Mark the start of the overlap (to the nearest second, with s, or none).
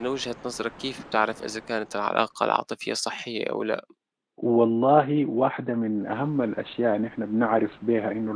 none